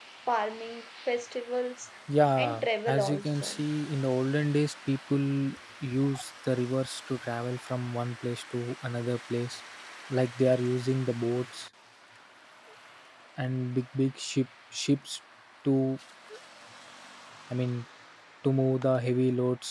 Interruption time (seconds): 2.4 s

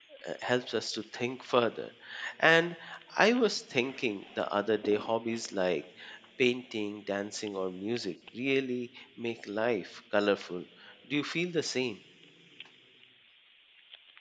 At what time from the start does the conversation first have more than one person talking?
none

